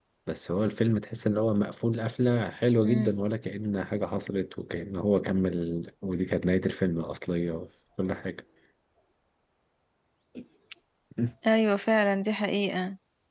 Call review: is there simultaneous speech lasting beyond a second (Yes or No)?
No